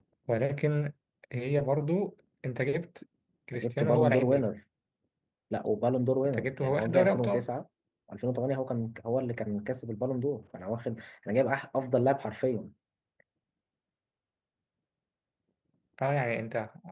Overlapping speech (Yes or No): Yes